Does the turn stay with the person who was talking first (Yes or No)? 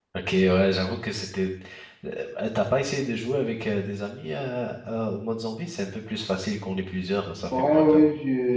No